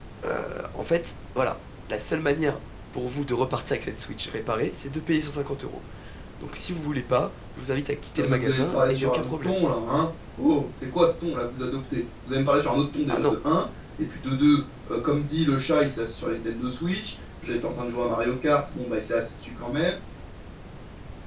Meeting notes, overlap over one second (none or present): present